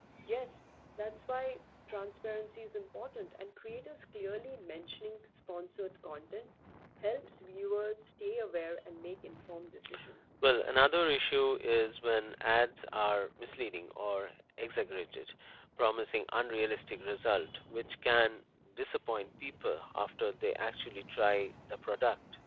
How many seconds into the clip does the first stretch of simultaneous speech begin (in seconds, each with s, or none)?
none